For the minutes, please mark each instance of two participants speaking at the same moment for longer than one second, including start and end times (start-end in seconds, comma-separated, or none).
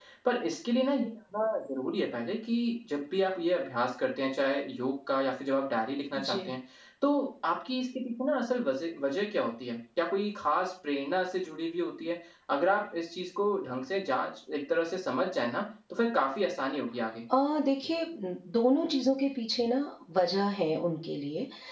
none